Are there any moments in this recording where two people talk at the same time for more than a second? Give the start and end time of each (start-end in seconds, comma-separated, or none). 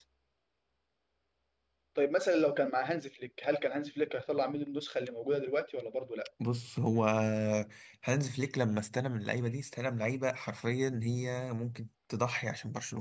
none